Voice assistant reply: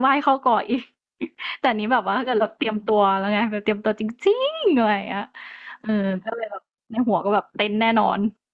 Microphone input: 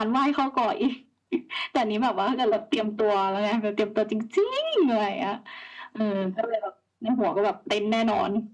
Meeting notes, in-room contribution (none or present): none